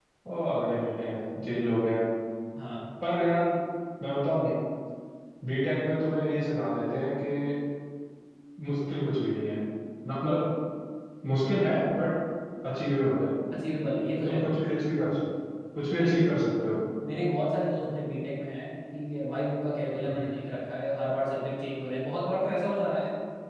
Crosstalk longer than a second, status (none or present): none